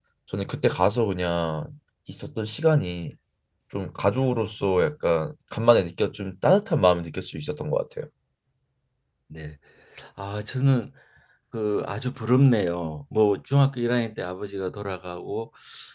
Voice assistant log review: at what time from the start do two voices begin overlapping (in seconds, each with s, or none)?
none